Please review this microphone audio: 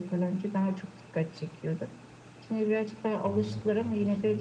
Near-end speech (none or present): present